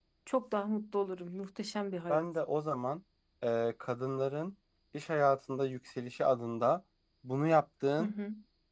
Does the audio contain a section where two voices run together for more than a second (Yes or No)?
No